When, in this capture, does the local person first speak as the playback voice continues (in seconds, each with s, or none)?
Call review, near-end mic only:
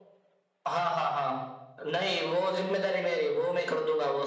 none